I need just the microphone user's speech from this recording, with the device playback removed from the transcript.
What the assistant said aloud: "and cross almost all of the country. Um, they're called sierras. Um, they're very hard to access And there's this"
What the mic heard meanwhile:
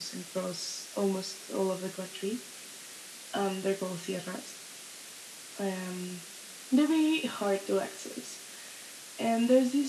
none

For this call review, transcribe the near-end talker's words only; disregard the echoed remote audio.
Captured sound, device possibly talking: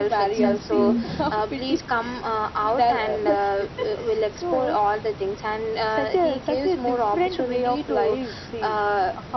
Mm, mm,

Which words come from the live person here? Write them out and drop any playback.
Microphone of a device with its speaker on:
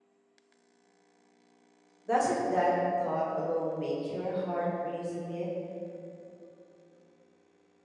doesn't that thought alone make your heart race a bit?

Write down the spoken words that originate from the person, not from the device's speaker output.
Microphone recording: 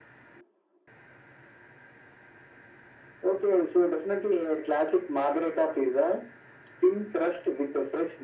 none

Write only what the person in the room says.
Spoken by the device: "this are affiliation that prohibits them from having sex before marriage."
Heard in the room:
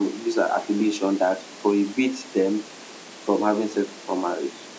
none

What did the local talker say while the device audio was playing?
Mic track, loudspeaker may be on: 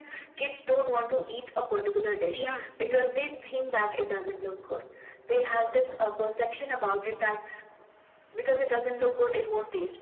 yeah yeah

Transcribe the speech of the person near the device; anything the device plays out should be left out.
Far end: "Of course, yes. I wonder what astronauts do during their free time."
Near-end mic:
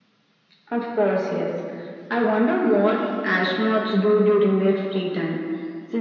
none

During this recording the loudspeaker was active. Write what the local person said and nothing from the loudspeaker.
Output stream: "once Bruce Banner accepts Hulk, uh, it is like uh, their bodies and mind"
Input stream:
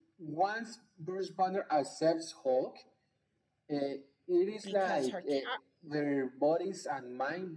because her cat

